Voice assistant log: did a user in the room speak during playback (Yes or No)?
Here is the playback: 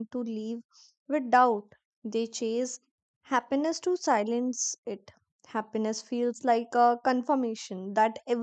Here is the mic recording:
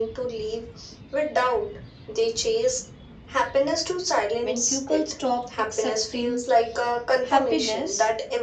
Yes